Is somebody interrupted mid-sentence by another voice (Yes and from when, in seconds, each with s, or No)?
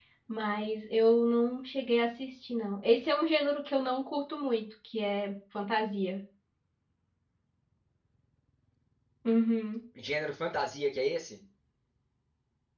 No